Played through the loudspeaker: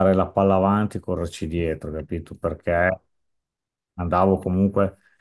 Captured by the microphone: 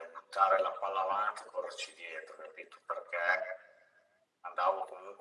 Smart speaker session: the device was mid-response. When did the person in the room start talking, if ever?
none

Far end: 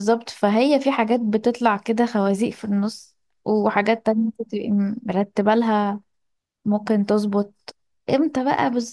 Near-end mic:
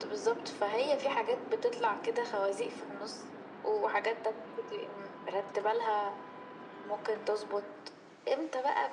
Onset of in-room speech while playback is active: none

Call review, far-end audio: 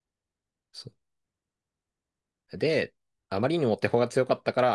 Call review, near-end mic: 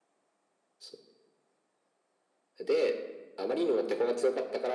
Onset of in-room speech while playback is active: none

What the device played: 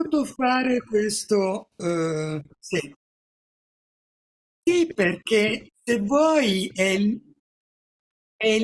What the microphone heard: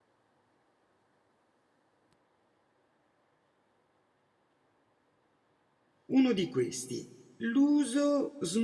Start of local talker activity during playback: 6.1 s

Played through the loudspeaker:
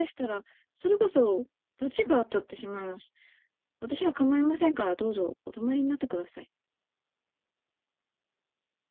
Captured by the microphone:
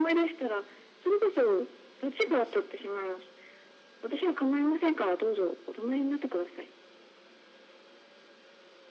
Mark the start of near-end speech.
none

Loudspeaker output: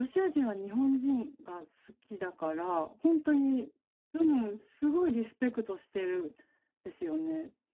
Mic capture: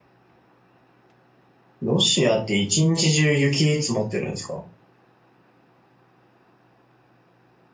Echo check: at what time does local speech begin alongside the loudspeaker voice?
1.8 s

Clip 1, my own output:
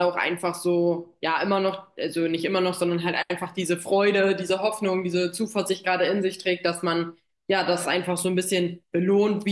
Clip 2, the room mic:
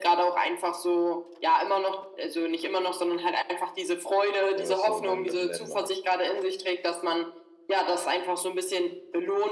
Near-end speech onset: 4.5 s

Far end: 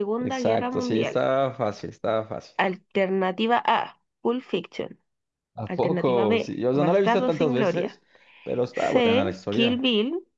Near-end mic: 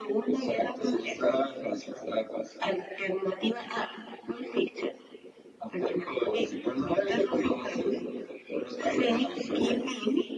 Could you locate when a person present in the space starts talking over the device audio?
none

